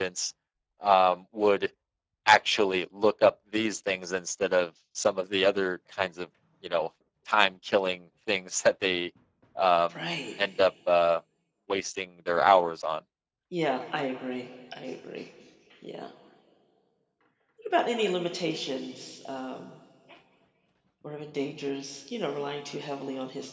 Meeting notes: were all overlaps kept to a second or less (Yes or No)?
Yes